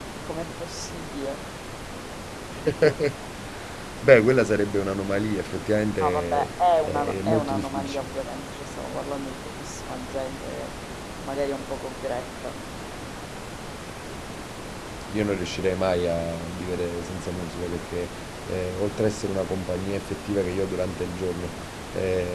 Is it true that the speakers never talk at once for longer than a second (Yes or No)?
No